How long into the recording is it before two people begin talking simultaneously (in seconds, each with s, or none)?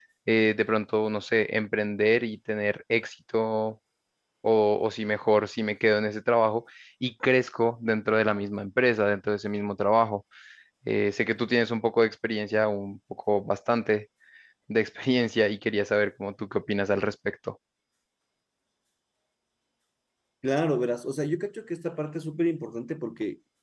none